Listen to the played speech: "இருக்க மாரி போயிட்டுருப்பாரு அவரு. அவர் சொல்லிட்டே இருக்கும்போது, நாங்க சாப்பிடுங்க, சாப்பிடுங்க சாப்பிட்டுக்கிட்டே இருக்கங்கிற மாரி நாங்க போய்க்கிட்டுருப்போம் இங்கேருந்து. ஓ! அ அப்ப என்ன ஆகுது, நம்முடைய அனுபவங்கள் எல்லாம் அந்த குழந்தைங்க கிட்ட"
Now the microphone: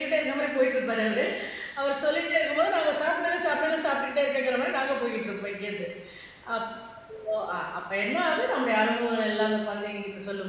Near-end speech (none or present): none